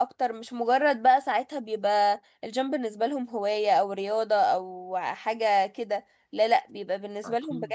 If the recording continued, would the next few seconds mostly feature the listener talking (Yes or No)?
No